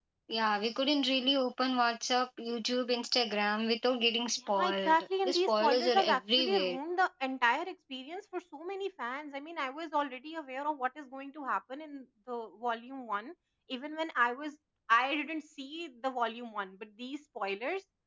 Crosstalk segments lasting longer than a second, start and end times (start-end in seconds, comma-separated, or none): 4.6-6.8